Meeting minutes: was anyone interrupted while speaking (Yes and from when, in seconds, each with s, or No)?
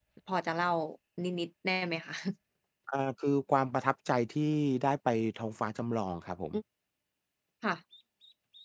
No